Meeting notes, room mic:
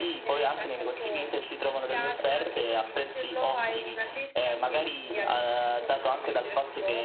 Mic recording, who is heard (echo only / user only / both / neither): echo only